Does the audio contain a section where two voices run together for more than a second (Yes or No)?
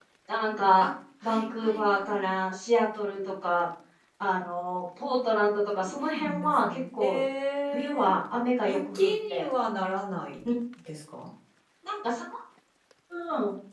Yes